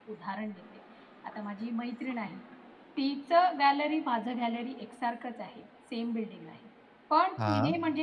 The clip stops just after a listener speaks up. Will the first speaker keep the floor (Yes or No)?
Yes